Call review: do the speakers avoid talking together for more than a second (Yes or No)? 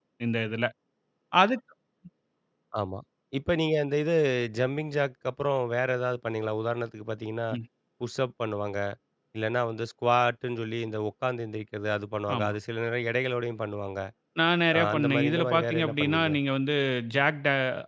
No